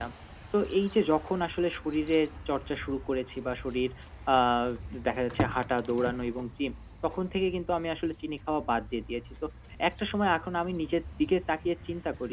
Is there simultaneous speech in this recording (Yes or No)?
No